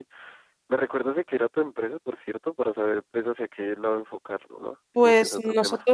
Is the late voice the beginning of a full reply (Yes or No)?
Yes